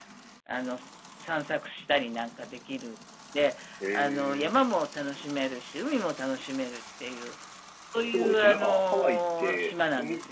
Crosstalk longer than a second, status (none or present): present